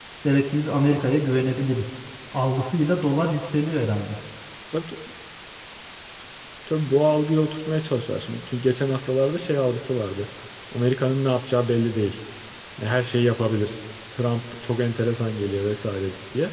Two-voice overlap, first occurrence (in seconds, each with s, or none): none